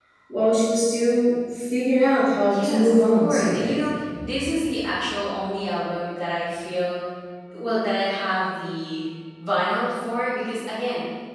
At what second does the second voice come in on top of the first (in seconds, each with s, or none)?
2.5 s